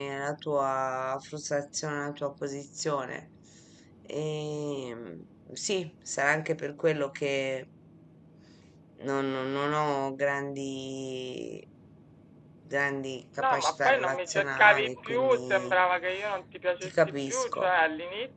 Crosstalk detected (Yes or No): Yes